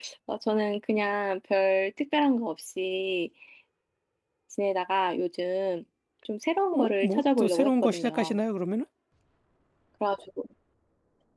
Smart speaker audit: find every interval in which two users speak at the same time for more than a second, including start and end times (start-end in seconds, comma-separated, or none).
6.7-8.4